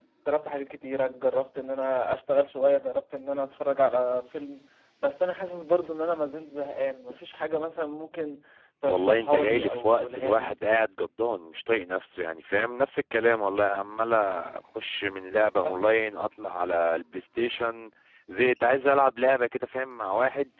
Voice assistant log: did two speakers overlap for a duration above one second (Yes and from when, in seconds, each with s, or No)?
Yes, from 8.8 s